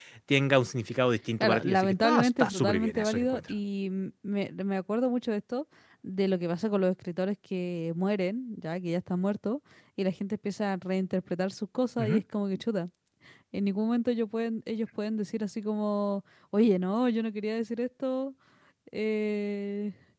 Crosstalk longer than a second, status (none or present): present